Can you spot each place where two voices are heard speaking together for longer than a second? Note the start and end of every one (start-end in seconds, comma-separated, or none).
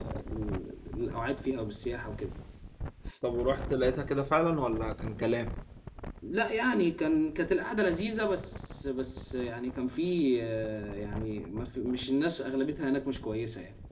none